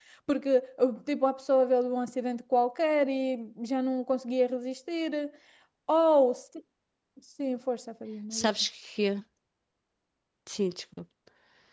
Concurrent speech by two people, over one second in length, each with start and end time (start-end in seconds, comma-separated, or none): none